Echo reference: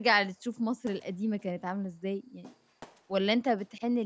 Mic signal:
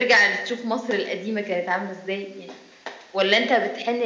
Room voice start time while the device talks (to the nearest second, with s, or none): none